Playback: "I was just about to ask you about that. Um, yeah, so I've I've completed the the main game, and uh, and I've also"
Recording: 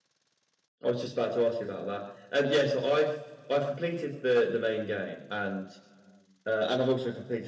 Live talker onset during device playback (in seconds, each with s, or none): none